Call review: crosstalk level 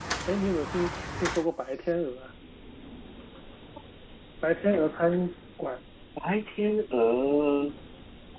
none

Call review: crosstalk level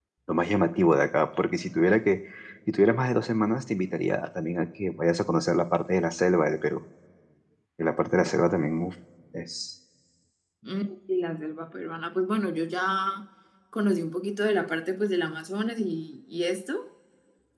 none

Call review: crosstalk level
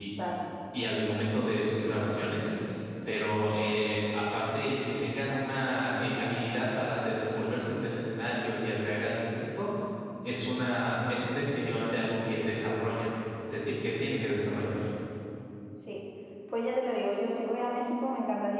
none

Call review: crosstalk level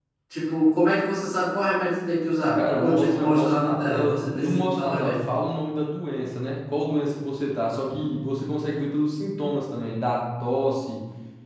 present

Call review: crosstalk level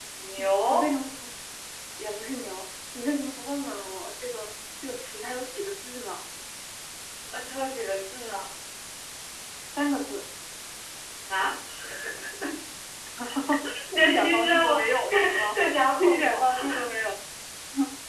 present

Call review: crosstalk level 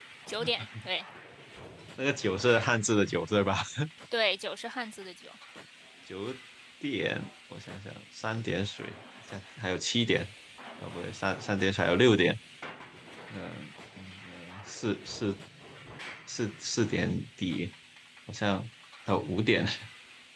none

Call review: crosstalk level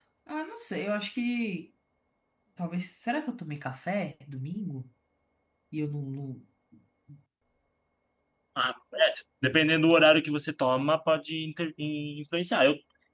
none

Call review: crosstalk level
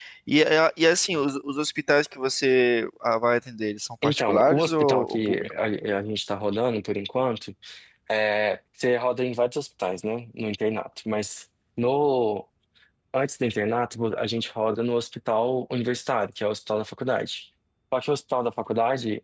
present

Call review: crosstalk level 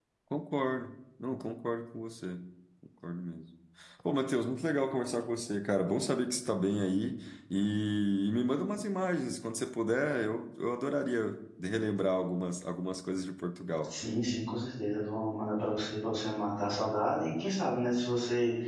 none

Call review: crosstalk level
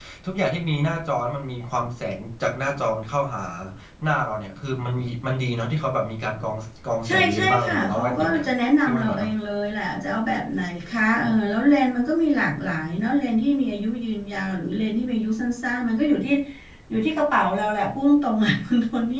present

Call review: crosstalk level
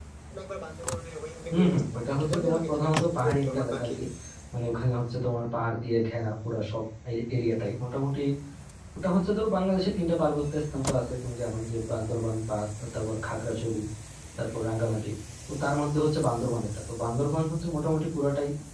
present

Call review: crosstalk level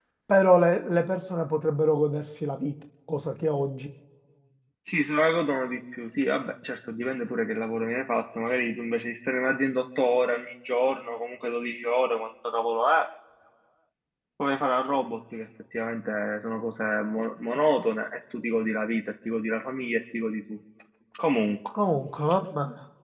none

